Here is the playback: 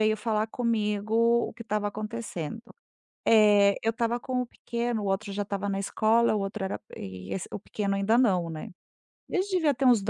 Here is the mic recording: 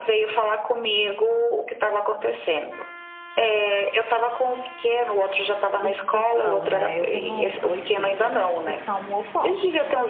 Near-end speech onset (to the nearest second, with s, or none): 6 s